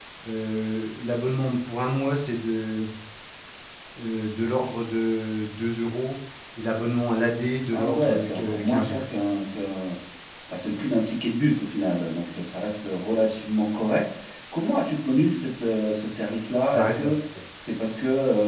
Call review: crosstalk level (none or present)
present